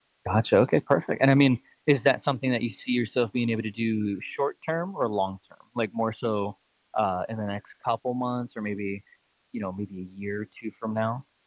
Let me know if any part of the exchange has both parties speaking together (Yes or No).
No